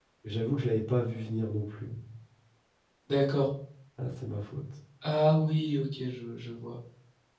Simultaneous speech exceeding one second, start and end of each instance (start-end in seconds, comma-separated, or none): none